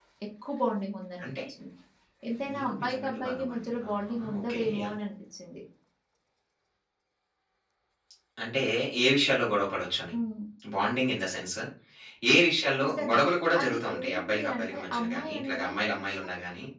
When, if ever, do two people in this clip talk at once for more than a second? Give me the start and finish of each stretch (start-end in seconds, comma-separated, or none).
2.5-4.9, 13.6-16.3